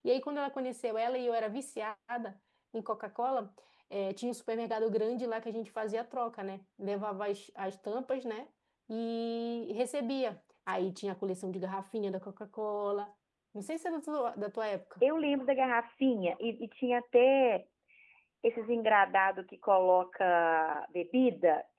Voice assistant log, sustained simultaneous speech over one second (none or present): none